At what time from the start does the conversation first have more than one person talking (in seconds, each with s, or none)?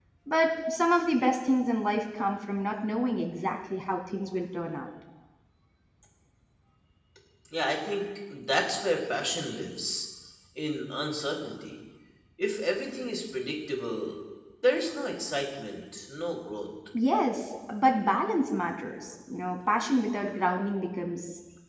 none